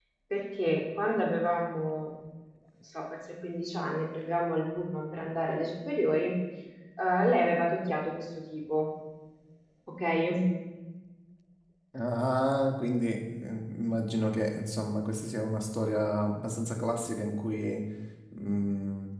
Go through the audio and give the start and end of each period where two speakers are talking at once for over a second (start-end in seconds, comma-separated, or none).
none